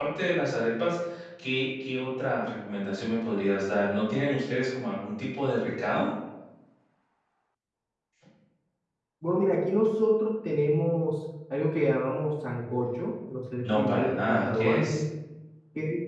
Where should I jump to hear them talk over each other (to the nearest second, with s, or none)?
14 s